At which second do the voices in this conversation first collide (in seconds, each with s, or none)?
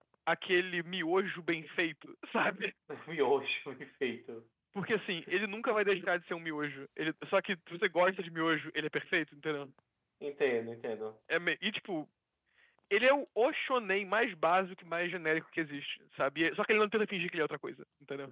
none